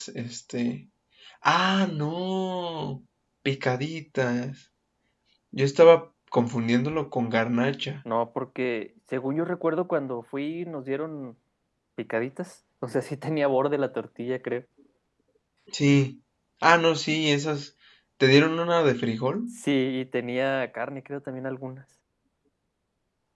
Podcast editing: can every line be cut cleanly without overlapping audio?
Yes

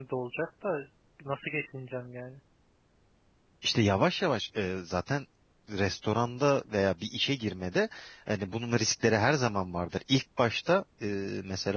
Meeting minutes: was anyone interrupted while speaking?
No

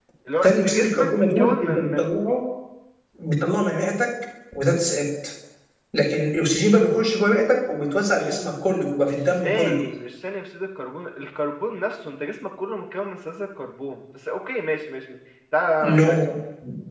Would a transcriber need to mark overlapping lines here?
Yes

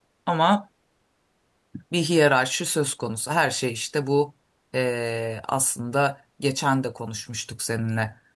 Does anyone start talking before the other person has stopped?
No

